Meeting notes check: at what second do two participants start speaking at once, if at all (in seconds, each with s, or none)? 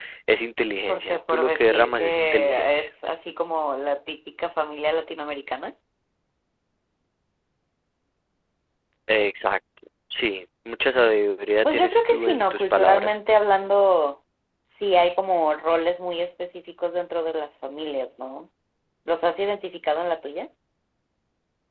0.9 s